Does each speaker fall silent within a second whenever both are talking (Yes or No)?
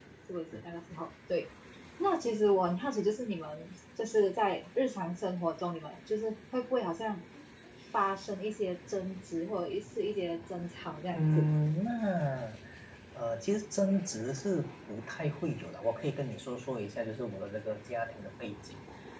Yes